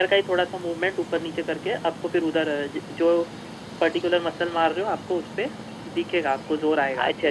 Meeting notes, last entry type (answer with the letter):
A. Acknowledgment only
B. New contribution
B